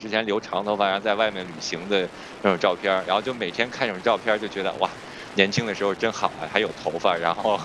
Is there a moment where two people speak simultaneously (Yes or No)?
No